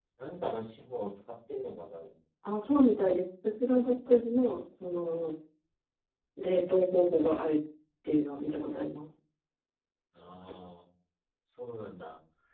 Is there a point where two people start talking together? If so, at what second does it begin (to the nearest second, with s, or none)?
none